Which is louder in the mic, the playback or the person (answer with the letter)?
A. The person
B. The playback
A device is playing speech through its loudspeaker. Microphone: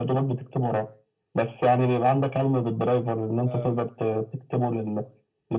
B